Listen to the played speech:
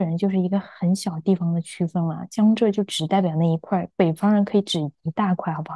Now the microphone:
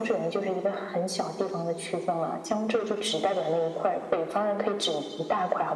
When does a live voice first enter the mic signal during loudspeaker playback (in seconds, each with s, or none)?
none